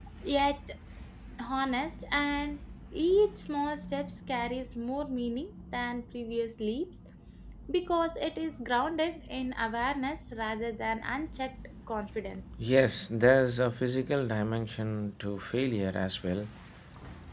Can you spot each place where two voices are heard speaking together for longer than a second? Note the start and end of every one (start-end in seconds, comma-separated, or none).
none